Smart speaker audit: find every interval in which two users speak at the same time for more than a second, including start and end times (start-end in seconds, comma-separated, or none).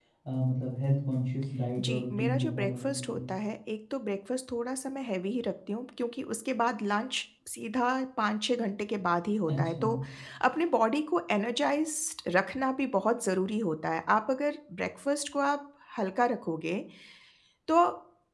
1.8-3.2